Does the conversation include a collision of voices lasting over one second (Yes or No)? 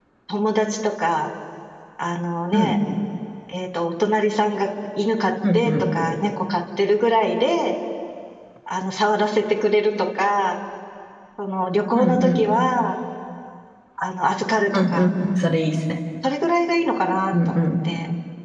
No